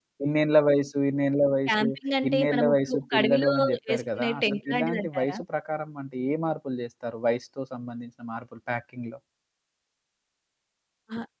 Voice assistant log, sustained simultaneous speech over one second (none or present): present